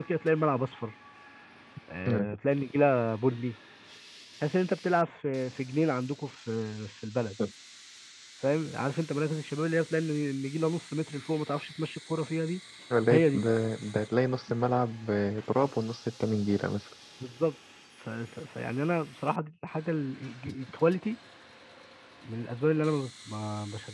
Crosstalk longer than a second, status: none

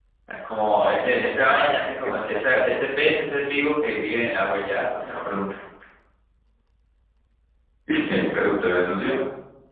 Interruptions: present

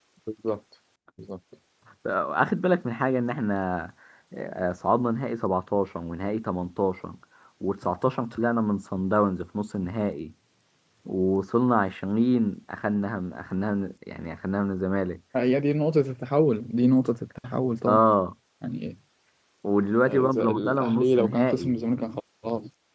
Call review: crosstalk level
present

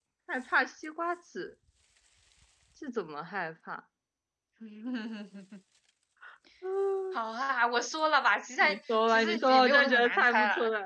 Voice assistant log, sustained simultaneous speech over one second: present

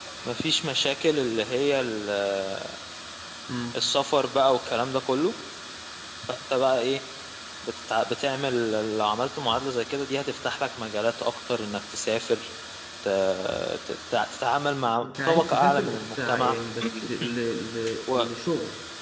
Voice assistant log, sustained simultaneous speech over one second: present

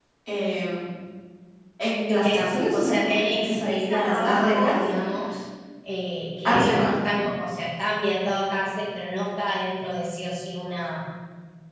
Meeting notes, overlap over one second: present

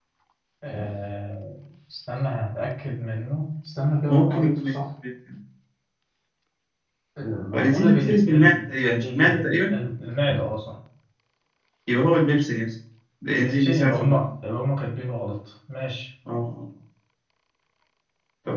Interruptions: present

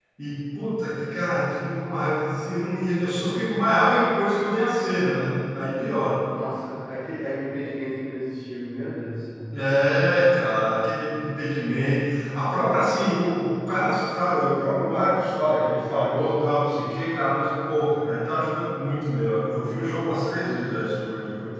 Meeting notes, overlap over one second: none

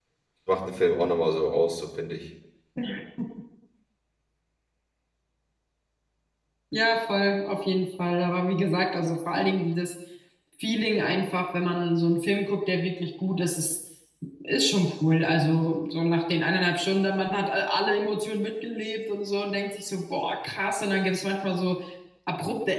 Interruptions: none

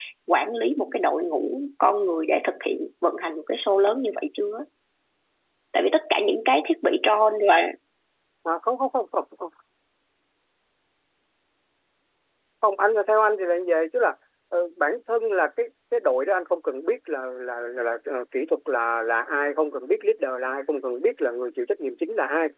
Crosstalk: none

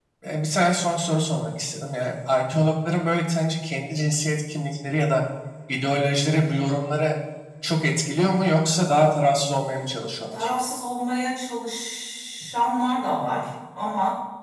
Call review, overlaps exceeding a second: none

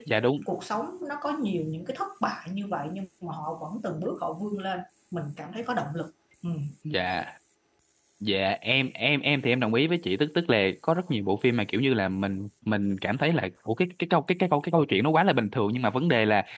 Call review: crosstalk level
none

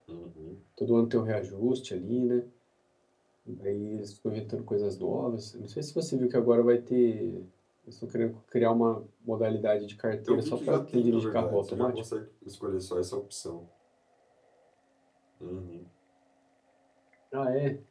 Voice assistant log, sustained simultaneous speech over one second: present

